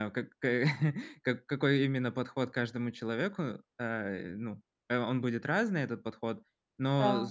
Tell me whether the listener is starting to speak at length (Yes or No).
No